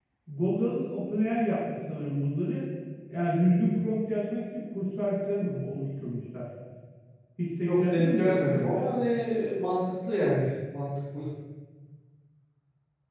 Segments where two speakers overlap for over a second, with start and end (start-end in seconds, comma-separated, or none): 7.7-8.9